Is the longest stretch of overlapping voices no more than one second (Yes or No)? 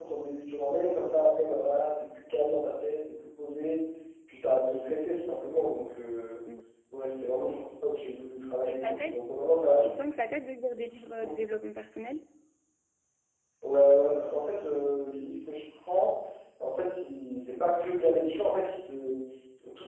Yes